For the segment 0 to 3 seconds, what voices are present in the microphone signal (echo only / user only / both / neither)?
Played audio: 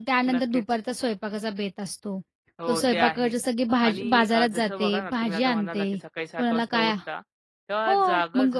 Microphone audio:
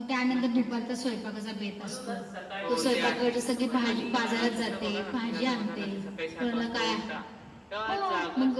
both